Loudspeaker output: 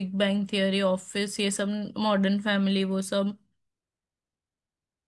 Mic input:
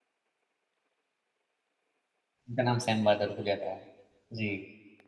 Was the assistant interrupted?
Yes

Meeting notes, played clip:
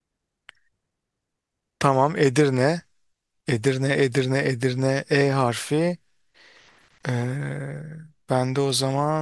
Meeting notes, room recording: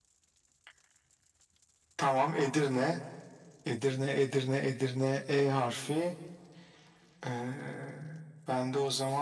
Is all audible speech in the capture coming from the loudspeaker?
Yes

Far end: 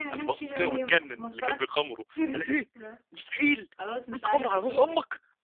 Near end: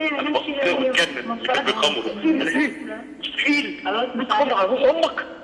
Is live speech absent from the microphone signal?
No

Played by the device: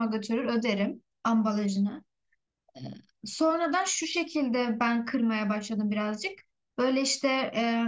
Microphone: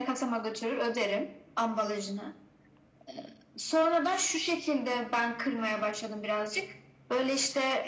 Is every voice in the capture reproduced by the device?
Yes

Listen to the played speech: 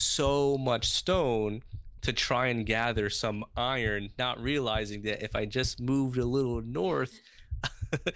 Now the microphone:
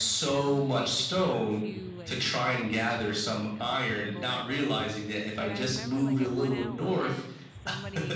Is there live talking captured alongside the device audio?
Yes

